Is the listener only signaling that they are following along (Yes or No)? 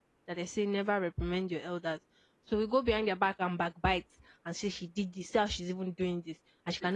Yes